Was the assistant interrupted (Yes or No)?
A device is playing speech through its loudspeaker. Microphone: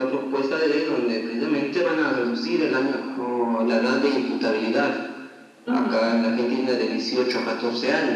Yes